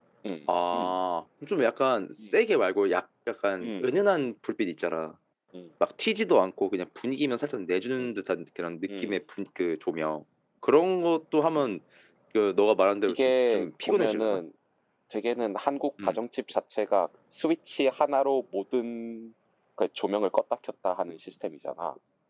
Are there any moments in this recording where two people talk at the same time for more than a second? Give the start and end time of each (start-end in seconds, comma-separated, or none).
13.1-14.4